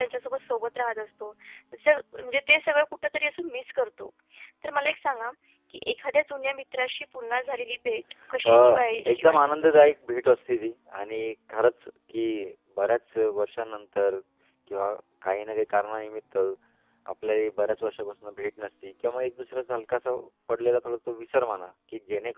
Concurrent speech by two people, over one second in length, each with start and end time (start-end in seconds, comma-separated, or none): 8.4-9.9